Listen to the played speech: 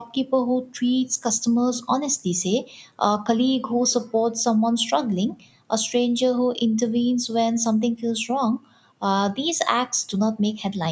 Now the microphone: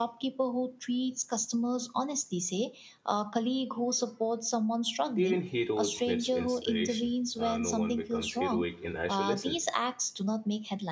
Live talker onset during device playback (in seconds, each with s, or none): 5.2 s